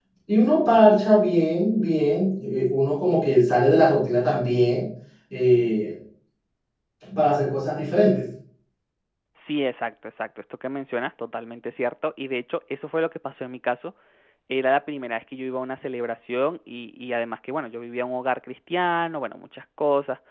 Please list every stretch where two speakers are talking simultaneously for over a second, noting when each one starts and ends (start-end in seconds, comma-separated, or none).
none